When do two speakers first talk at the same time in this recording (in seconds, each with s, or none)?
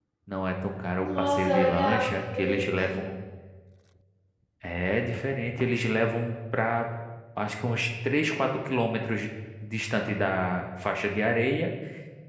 1.0 s